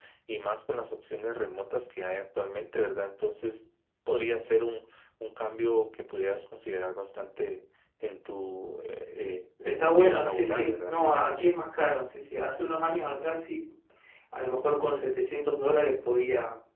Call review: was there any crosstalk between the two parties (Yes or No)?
Yes